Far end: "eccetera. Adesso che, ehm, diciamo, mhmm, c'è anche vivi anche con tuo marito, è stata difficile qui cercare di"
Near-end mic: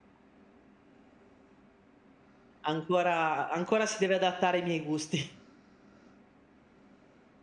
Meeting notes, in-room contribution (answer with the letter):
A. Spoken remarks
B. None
A